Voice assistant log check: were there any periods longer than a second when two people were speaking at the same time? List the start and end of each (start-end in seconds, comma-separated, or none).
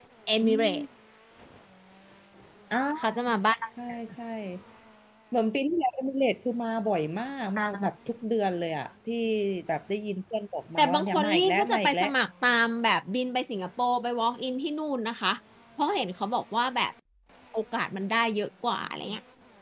10.8-12.1